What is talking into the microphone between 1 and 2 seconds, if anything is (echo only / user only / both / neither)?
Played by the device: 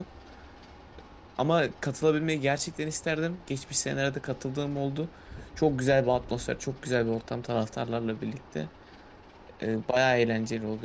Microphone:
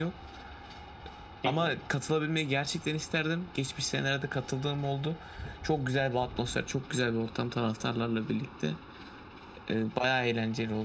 both